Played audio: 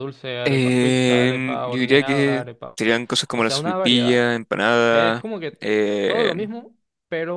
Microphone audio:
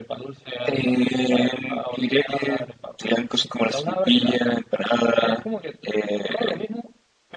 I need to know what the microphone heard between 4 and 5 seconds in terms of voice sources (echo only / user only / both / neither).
echo only